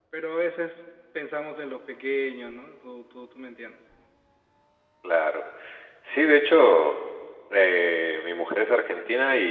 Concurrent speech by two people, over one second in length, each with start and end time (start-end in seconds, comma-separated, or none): none